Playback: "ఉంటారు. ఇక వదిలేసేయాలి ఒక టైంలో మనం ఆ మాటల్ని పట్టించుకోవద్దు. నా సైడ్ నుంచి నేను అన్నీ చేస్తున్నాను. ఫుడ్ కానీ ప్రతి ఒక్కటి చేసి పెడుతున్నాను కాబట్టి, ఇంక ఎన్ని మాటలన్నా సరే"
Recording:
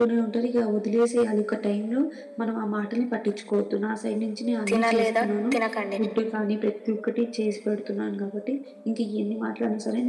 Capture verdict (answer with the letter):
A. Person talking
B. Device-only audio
A